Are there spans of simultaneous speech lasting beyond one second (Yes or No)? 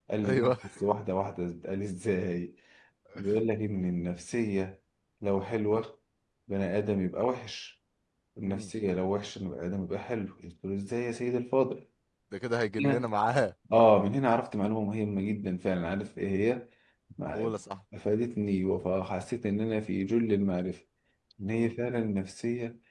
No